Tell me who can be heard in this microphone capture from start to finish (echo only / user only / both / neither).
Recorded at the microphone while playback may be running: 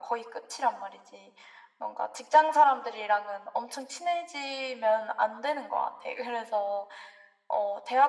echo only